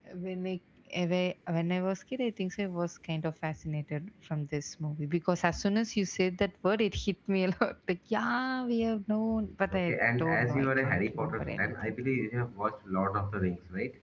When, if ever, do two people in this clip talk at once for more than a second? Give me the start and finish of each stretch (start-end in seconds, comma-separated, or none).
9.7-11.9